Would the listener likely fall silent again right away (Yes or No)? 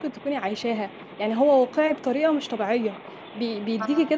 Yes